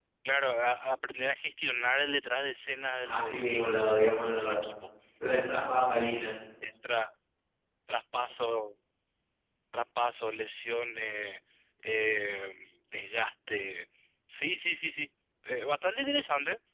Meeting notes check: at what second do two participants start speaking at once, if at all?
3 s

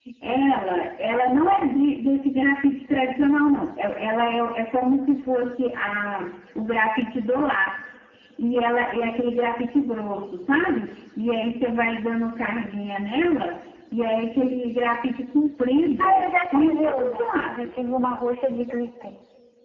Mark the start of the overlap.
16 s

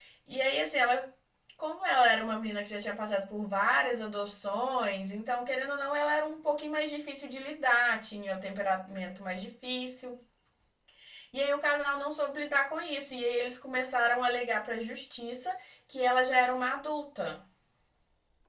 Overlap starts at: none

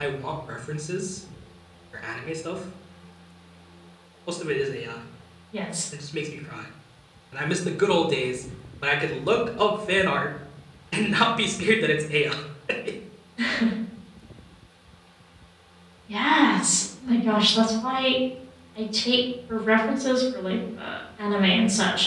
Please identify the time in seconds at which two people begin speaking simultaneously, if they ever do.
none

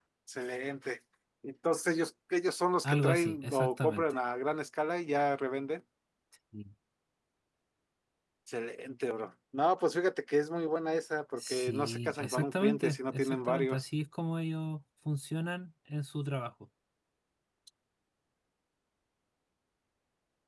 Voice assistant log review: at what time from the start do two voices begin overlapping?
3 s

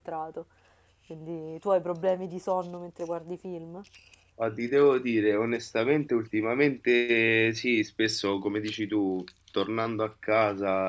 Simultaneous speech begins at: none

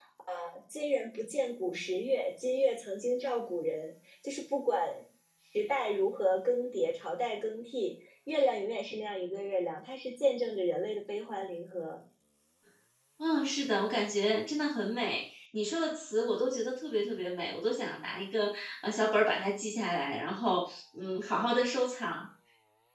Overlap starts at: none

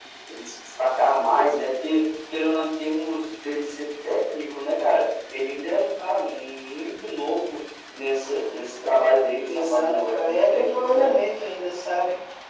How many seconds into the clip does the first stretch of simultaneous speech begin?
9 s

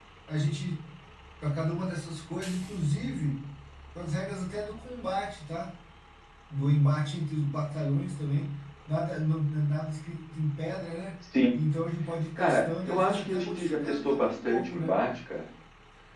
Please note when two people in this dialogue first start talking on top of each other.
12 s

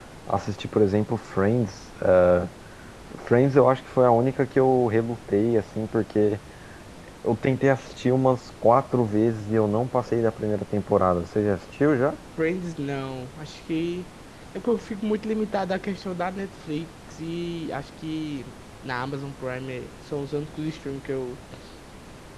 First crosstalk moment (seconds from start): none

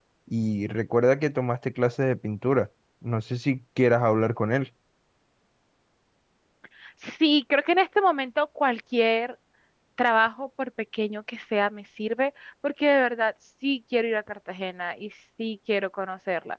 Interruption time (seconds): none

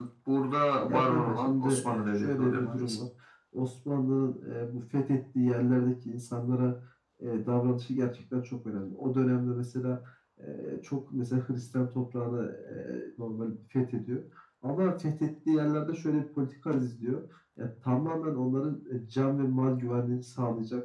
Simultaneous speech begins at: 1 s

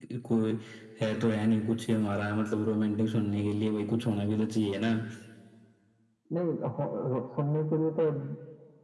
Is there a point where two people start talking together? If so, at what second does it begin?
none

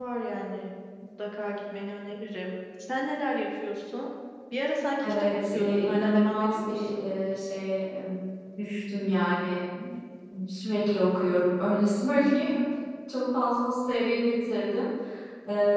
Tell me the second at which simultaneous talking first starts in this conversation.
5 s

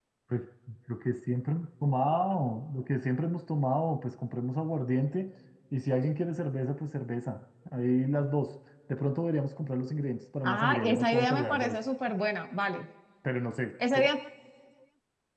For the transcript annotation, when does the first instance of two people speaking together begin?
10 s

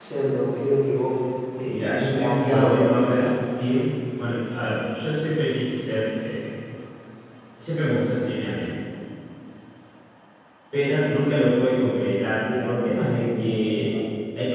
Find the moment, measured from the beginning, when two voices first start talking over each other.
2 s

